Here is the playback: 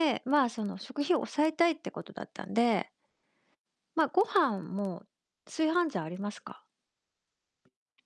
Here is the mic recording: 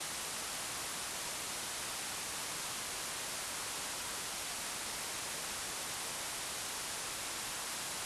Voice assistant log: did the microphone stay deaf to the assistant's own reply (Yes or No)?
Yes